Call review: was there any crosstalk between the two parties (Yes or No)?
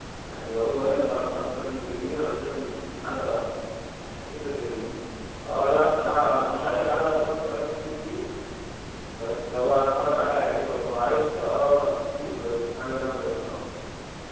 No